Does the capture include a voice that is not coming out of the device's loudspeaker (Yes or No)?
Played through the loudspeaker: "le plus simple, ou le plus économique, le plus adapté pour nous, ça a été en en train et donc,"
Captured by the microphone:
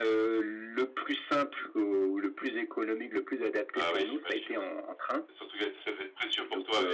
Yes